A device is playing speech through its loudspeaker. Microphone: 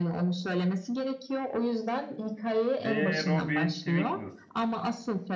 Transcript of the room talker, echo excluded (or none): D. Robin Twinkles